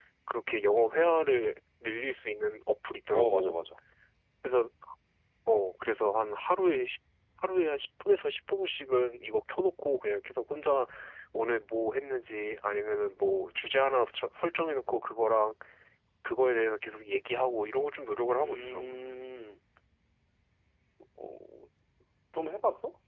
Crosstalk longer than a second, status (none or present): none